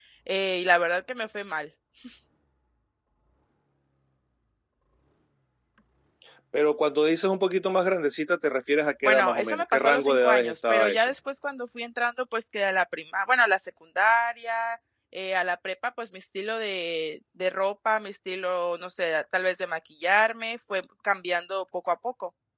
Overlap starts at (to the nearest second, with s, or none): 9 s